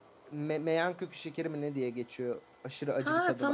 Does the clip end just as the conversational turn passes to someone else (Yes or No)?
Yes